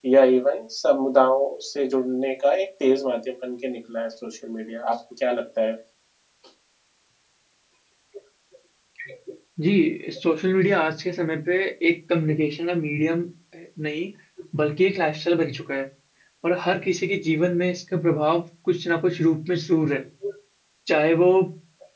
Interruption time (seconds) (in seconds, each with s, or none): none